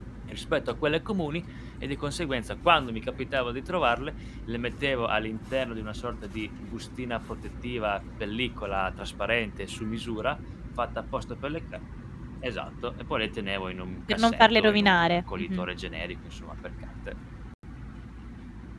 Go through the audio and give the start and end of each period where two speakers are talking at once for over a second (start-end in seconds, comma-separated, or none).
14.1-15.6